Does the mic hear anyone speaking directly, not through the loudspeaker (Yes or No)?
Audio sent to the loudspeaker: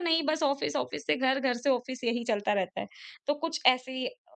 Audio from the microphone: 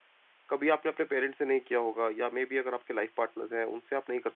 Yes